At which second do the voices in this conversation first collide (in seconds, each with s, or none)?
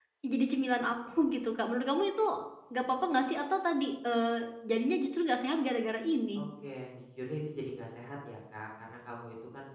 none